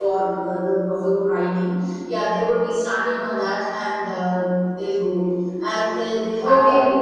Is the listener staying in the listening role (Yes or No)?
No